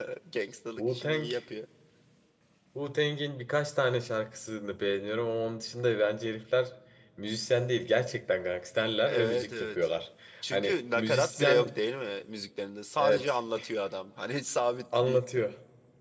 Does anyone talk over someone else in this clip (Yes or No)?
Yes